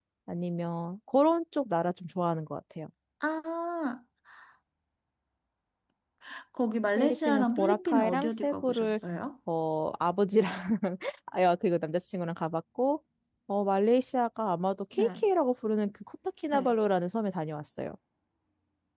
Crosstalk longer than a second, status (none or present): present